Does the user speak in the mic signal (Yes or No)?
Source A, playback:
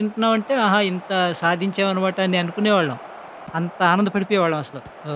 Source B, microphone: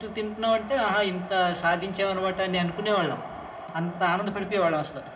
No